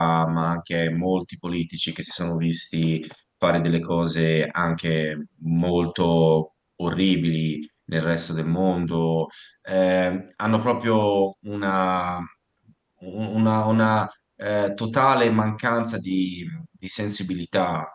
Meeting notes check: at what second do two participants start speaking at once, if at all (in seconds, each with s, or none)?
none